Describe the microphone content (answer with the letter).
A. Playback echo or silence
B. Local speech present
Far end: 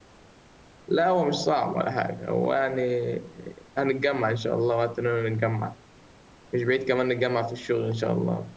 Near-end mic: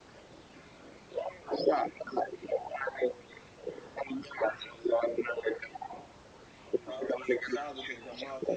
B